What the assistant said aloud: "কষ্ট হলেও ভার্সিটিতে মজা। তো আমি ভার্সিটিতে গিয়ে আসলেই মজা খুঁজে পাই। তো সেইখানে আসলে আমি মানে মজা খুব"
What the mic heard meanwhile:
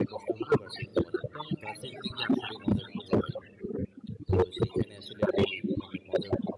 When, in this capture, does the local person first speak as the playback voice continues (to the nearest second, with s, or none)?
none